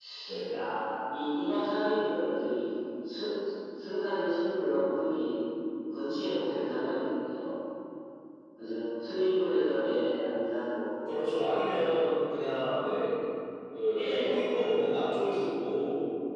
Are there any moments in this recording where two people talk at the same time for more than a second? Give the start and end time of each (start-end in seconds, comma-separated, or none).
none